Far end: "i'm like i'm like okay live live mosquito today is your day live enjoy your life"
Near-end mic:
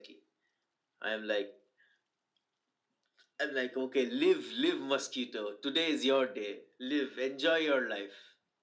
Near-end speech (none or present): none